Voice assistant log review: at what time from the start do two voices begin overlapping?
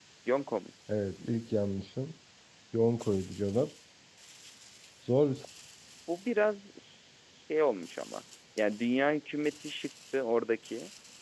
none

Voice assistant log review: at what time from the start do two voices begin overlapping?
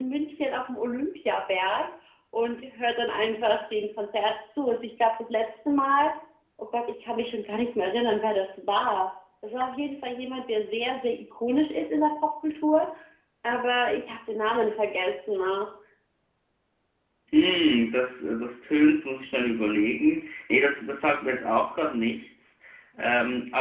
none

